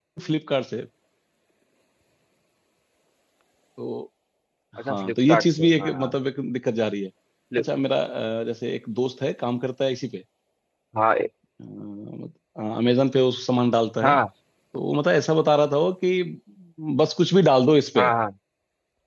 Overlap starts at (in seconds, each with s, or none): 4.9 s